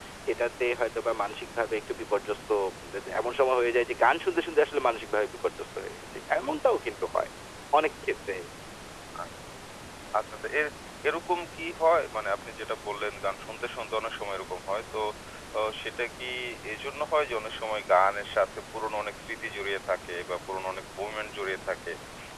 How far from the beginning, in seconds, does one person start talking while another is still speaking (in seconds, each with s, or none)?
none